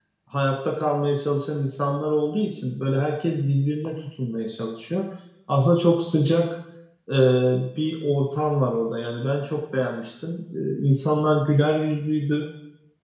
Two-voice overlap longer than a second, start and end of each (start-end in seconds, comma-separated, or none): none